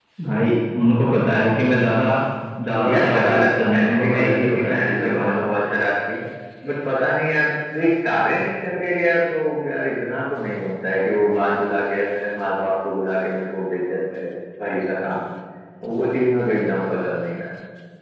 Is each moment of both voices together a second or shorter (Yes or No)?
No